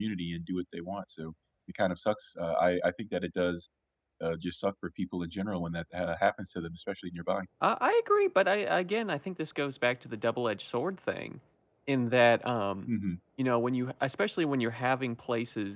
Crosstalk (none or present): none